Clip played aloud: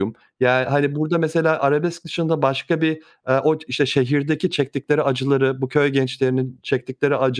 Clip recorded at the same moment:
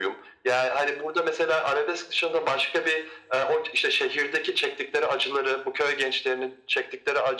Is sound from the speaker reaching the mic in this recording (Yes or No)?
Yes